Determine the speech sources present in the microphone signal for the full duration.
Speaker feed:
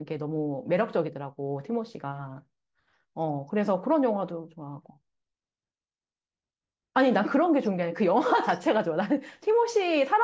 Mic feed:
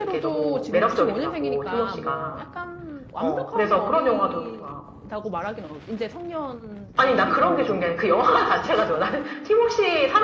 both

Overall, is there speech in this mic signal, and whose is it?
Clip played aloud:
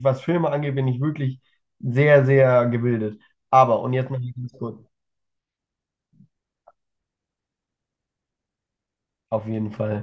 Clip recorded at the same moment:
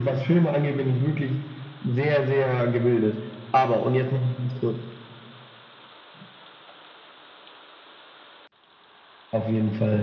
echo only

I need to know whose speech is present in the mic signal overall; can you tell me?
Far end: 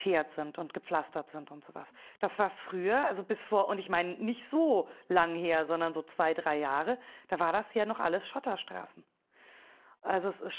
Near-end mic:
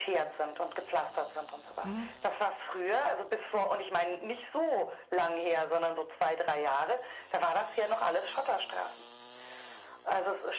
both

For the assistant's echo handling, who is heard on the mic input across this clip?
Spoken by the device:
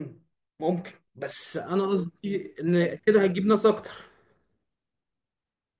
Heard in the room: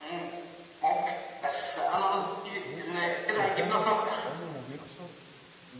both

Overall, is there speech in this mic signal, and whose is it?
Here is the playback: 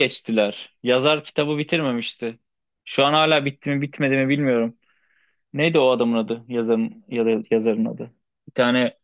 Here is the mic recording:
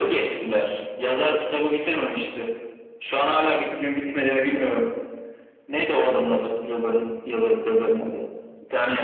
echo only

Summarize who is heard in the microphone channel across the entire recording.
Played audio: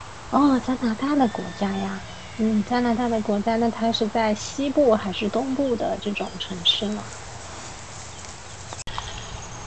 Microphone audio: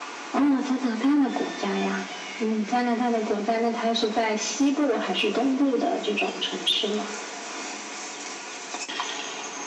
echo only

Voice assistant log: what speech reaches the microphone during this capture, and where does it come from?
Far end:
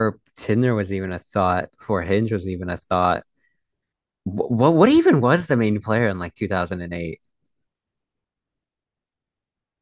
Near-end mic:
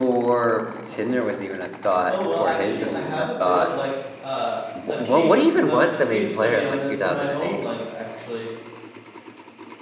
both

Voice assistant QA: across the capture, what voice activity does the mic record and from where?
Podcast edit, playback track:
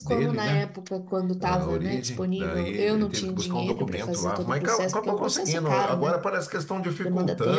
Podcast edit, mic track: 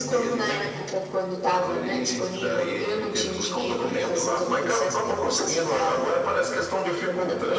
both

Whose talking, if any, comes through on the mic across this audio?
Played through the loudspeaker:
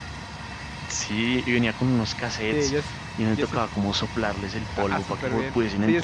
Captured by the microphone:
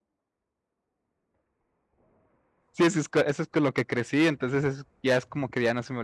user only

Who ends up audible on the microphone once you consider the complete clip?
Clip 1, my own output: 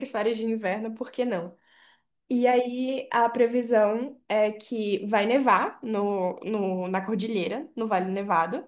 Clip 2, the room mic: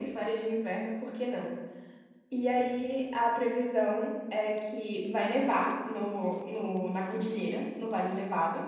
echo only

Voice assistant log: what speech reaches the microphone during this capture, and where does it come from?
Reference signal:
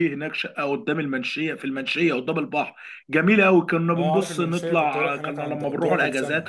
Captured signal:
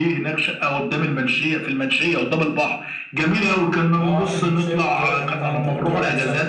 echo only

